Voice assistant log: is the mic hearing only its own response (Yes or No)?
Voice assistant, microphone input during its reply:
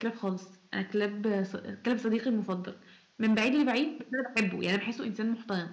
No